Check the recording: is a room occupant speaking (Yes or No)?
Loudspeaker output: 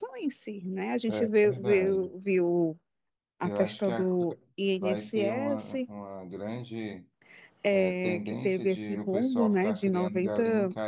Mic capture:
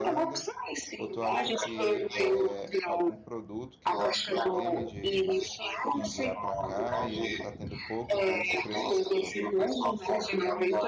Yes